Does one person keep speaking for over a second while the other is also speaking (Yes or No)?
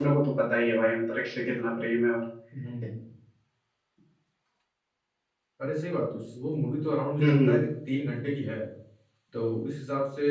No